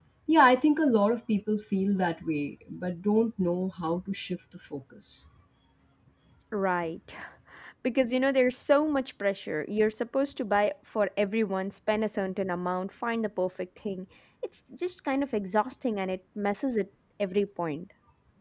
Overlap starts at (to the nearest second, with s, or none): none